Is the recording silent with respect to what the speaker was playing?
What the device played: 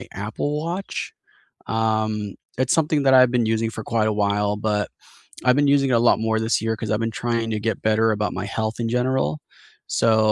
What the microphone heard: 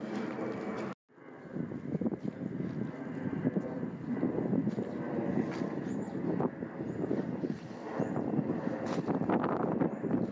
Yes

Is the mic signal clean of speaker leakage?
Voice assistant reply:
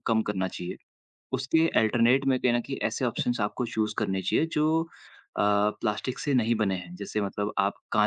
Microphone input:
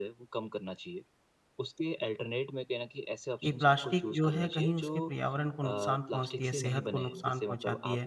No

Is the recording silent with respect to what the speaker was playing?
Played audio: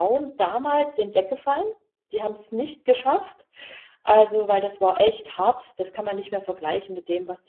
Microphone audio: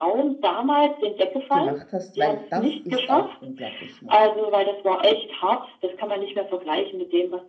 No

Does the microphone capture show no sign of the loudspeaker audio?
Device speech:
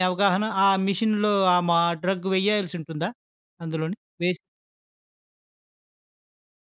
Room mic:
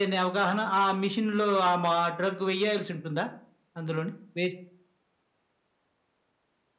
No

